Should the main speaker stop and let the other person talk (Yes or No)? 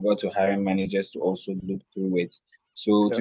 No